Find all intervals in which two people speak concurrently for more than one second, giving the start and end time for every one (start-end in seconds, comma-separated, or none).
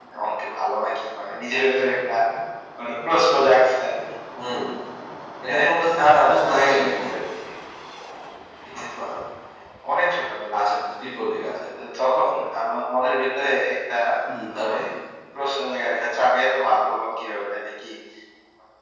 5.5-7.1